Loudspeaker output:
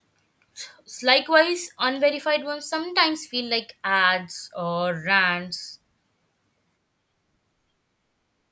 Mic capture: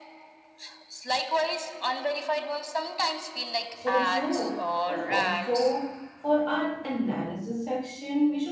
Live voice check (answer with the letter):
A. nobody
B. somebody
B